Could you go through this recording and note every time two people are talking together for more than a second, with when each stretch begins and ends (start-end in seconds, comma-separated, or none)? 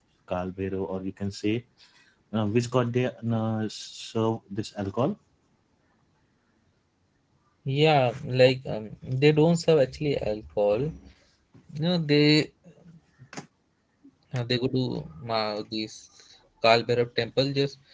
none